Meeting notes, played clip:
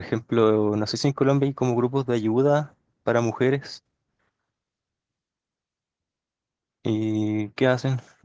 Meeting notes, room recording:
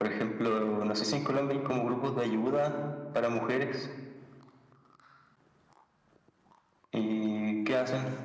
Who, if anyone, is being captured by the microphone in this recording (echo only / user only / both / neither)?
echo only